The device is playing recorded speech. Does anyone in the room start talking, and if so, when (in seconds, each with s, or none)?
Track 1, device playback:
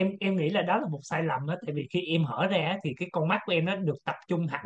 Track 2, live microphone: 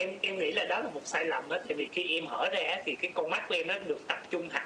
none